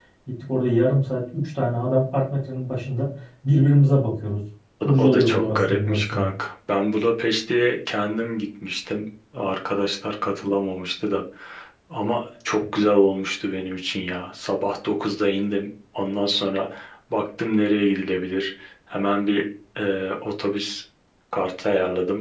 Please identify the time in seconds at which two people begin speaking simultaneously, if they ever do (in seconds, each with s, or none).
4.8 s